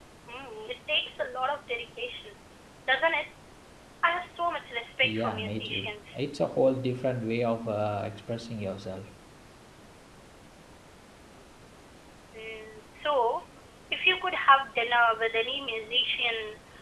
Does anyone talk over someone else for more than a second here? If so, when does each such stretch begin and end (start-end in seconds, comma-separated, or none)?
5.0-6.2